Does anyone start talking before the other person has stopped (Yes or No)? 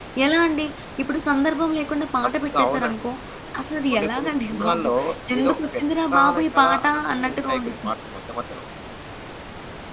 Yes